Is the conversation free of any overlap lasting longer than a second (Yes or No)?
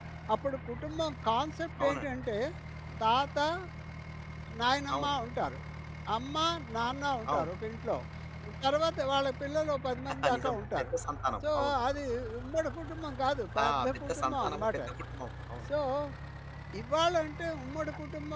No